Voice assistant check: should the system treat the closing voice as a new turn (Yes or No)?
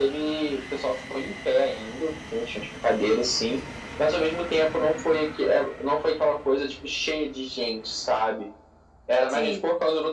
No